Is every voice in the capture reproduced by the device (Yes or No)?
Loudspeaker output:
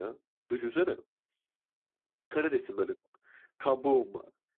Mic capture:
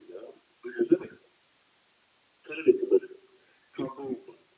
Yes